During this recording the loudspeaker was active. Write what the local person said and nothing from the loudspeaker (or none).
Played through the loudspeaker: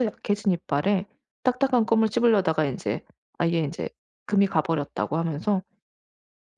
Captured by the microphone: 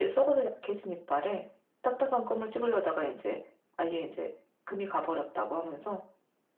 none